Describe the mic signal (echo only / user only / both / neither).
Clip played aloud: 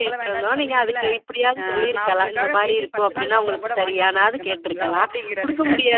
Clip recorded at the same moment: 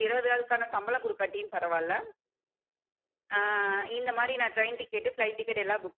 user only